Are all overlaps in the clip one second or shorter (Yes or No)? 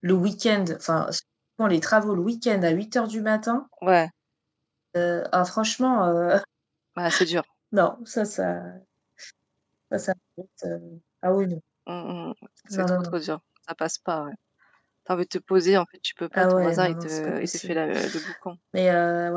No